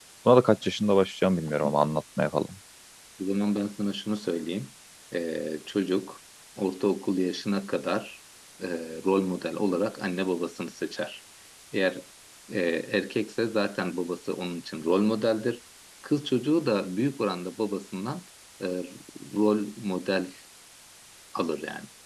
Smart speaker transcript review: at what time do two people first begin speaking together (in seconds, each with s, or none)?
none